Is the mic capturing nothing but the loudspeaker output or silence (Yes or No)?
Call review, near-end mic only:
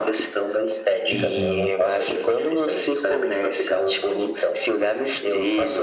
No